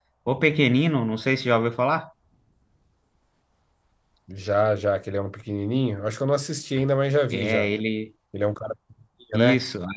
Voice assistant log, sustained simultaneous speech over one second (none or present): none